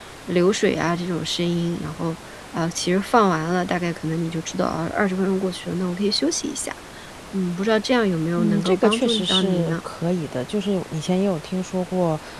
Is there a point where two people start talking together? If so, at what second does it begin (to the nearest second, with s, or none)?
8 s